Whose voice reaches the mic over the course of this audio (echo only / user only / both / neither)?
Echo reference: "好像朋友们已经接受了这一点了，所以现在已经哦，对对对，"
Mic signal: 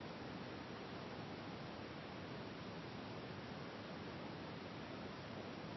neither